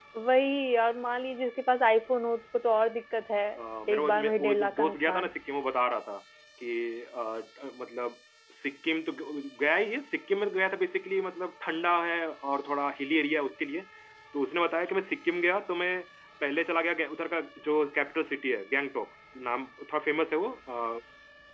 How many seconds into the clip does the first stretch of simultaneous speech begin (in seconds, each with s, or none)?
3.9 s